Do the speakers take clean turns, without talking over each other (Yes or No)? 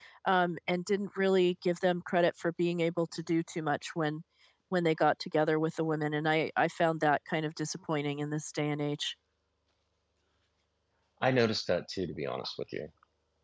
Yes